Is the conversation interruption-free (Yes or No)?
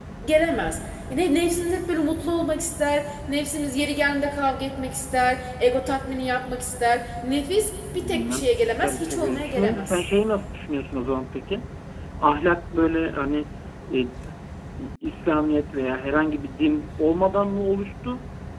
No